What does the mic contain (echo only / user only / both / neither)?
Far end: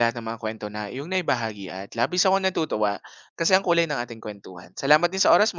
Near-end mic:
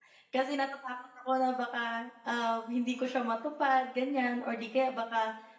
user only